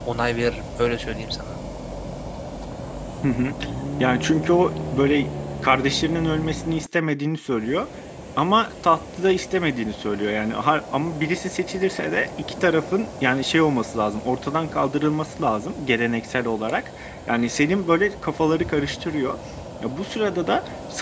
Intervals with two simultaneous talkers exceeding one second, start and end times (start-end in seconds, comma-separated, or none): none